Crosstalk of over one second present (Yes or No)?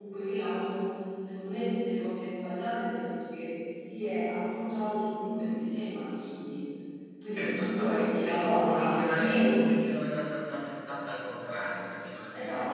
Yes